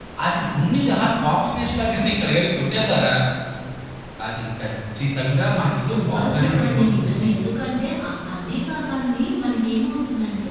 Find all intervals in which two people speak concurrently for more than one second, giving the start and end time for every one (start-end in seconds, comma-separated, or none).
5.9-7.2